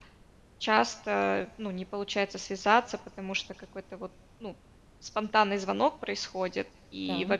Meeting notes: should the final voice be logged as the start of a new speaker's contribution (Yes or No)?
No